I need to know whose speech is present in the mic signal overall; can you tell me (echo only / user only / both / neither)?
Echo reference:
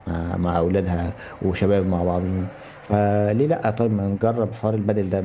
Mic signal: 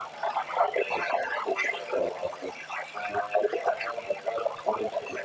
echo only